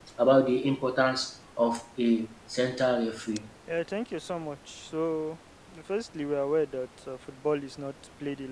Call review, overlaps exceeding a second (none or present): none